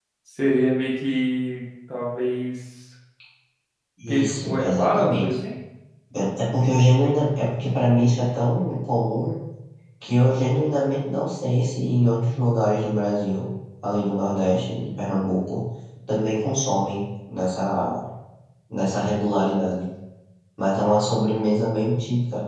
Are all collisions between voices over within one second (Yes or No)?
No